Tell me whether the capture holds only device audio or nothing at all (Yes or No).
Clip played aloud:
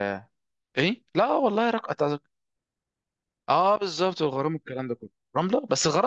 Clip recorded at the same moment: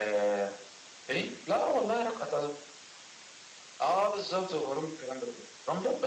Yes